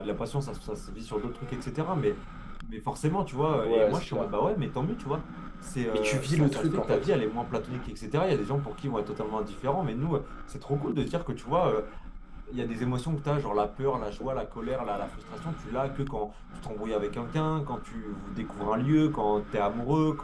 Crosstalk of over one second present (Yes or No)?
Yes